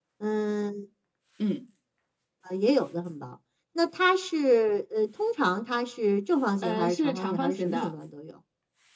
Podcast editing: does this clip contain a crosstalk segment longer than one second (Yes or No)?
Yes